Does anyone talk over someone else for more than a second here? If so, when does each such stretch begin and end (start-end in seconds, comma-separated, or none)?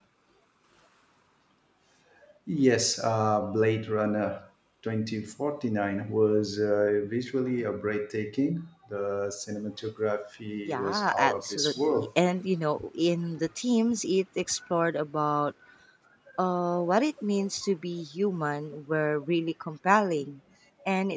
10.7-12.1